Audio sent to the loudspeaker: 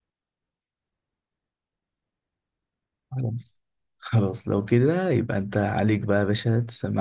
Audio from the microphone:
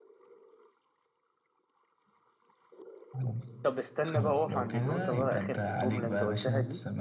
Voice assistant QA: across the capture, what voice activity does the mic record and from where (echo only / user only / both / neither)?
both